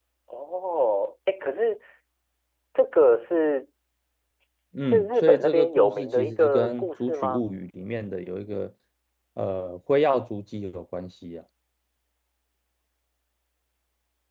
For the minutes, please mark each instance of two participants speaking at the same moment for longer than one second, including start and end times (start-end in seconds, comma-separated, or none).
4.8-7.4